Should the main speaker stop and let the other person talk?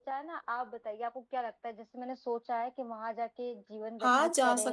Yes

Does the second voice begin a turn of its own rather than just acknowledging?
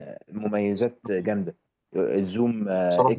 No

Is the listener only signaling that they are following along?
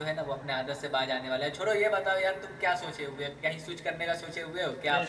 No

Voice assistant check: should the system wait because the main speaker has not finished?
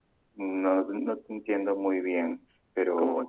No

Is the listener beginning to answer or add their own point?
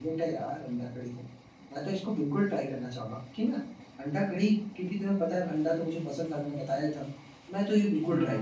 No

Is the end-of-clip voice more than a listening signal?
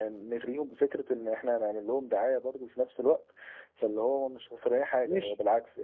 Yes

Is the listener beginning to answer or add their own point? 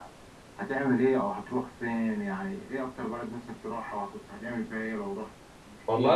Yes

